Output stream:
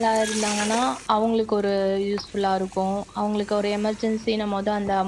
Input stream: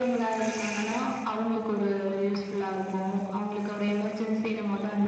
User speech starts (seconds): none

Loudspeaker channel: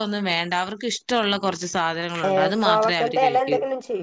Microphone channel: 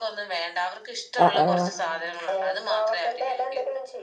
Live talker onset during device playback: 1 s

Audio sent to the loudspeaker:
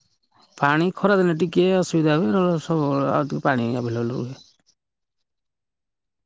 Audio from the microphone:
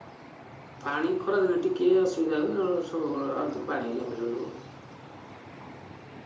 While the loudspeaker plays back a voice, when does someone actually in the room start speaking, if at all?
none

